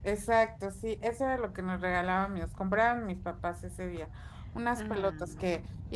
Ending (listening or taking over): listening